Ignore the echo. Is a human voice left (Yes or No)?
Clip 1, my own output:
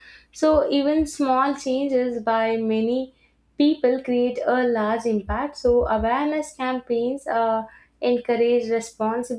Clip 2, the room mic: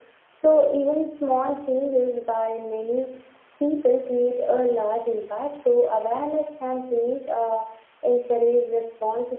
No